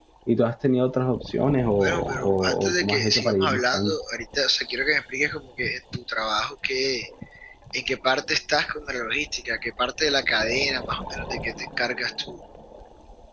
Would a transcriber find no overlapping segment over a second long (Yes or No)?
No